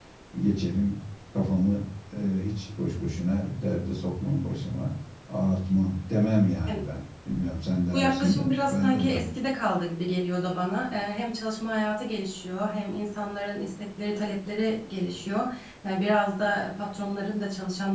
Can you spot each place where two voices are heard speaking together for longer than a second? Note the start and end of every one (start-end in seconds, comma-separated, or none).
7.9-9.2